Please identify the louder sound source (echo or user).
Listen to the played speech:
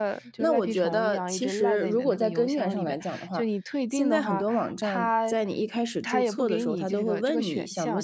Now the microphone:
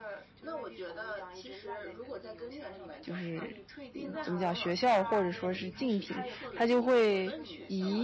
user